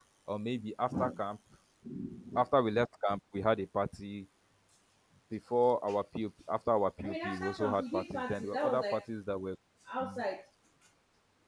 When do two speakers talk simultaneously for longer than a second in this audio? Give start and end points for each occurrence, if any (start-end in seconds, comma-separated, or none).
7.0-9.0